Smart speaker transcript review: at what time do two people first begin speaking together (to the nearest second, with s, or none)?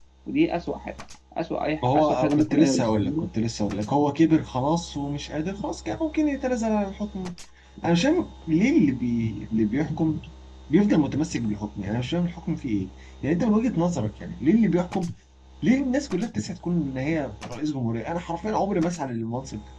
2 s